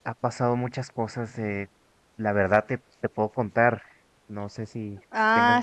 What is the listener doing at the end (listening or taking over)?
taking over